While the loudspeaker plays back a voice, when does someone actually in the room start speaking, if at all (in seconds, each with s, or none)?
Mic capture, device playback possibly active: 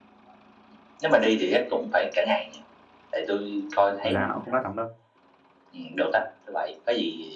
4.0 s